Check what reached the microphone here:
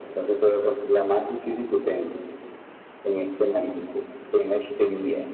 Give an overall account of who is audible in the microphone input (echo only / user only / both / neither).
echo only